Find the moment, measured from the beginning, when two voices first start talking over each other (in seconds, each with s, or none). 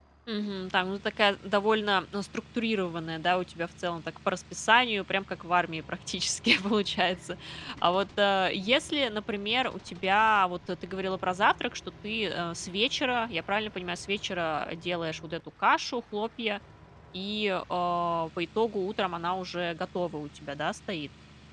none